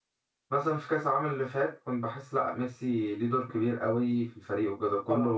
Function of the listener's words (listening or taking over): listening